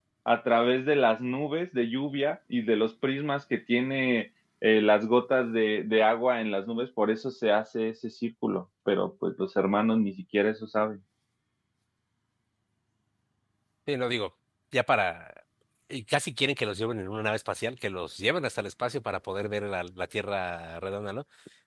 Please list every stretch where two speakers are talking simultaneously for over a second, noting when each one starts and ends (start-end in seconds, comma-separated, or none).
none